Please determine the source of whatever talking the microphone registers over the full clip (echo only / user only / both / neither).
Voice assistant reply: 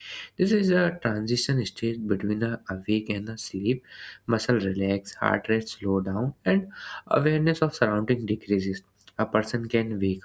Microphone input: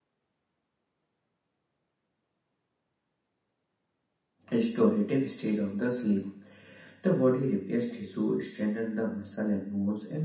user only